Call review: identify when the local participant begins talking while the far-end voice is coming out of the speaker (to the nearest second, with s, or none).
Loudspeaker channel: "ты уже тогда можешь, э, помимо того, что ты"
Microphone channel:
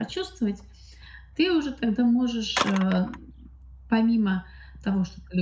none